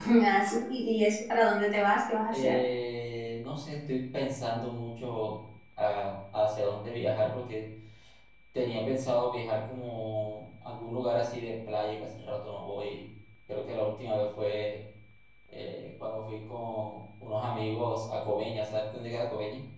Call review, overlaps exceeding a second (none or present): none